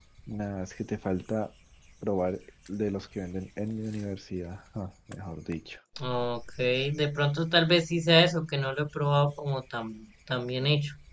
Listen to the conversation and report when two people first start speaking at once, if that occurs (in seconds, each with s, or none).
none